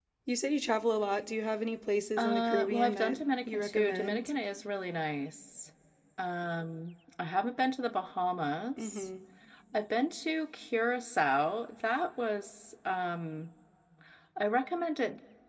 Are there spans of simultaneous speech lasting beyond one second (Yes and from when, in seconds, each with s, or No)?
Yes, from 2.2 s